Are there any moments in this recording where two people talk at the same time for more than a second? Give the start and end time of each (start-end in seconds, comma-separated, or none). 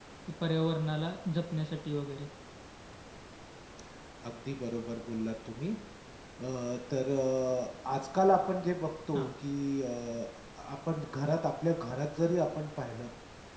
none